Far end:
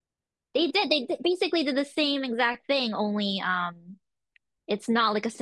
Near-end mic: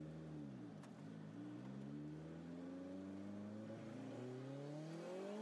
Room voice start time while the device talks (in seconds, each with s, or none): none